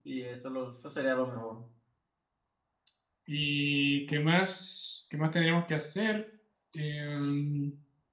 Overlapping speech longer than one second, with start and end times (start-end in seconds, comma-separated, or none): none